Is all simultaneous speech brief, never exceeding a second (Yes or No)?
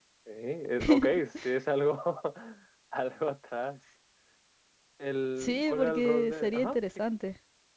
No